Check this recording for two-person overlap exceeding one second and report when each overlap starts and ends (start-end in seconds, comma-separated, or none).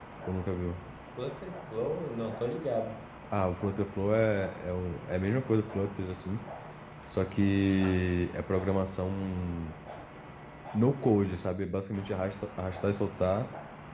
none